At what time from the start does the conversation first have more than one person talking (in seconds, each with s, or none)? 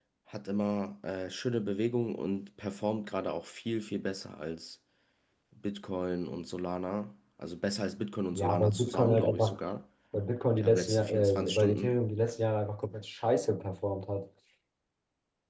8.3 s